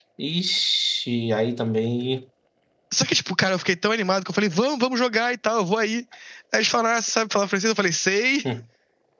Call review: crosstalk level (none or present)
none